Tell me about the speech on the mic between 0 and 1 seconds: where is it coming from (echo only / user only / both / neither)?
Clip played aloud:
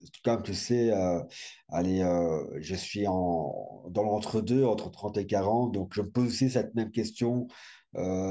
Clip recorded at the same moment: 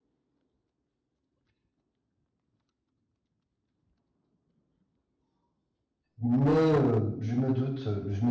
neither